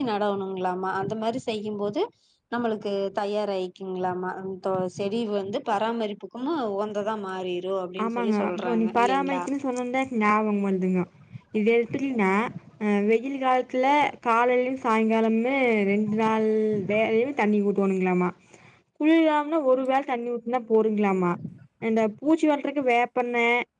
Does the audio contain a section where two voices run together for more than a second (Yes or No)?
Yes